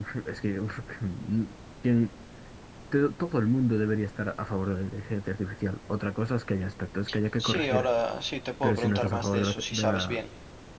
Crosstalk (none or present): present